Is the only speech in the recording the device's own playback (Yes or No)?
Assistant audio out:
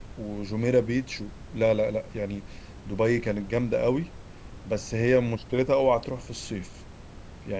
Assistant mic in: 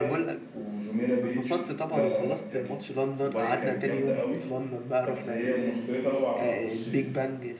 No